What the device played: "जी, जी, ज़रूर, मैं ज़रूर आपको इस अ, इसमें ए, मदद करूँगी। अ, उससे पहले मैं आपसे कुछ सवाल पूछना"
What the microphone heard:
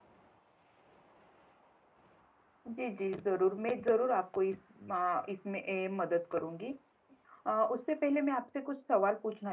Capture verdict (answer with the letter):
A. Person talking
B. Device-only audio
B